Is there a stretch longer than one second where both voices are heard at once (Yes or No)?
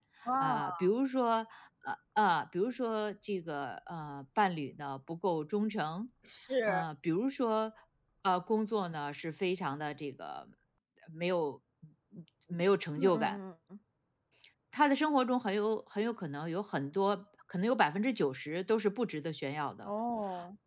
No